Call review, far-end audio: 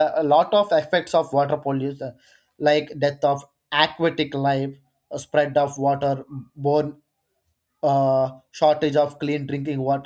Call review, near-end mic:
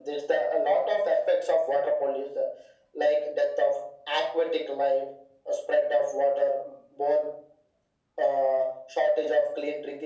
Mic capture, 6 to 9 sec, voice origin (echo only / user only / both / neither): echo only